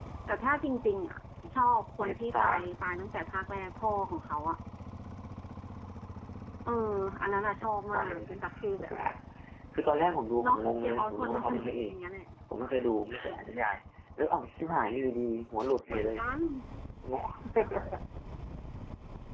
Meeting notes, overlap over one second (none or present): present